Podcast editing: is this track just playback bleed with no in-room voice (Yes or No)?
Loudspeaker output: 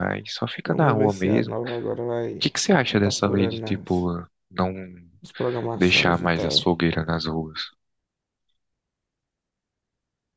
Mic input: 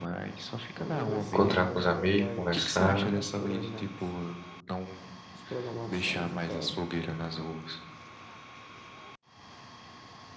No